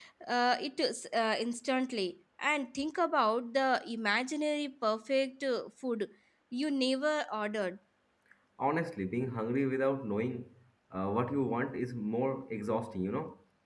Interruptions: none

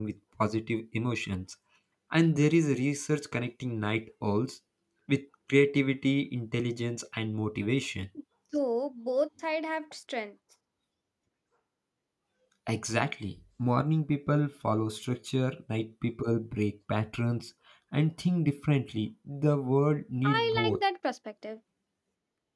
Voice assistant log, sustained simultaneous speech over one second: none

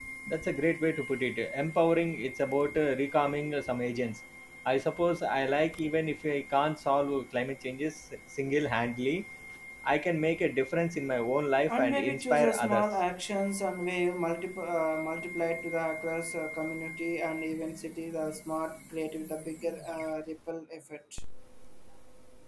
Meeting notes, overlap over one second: present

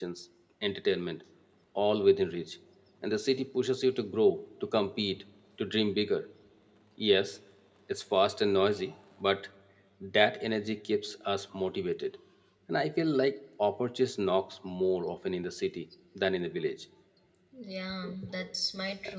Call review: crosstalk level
none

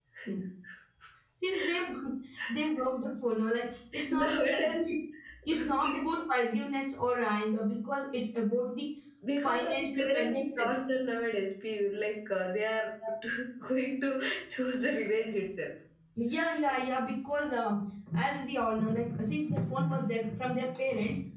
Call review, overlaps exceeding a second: present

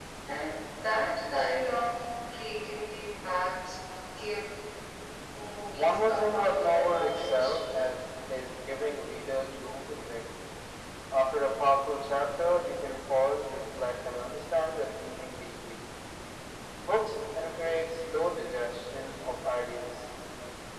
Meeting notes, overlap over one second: present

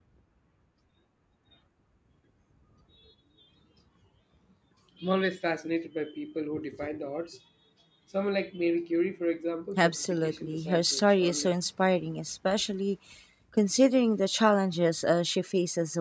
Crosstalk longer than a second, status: present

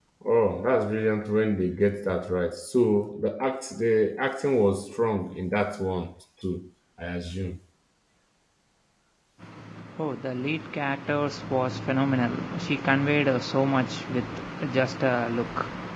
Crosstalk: none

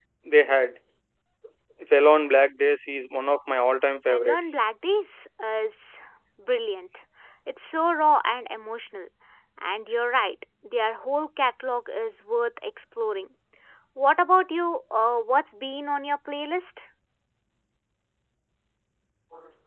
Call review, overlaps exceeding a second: none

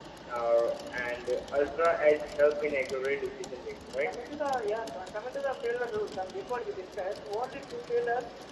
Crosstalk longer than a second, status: none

